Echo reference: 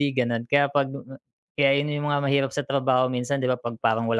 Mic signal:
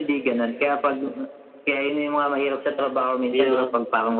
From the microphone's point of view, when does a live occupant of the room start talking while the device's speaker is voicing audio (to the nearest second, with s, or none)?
3 s